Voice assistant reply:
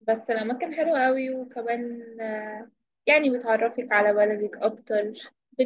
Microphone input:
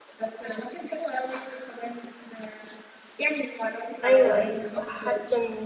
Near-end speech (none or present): present